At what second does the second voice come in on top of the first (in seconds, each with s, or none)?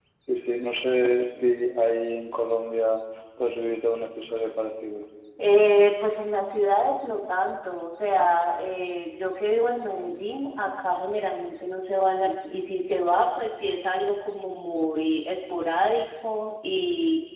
none